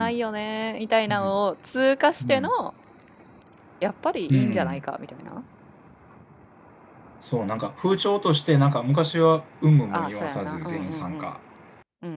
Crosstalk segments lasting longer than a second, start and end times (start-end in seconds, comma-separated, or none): 9.9-11.3